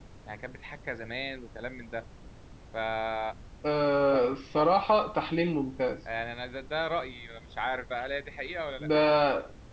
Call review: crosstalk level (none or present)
none